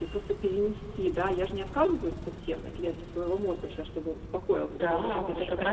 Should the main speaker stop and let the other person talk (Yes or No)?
Yes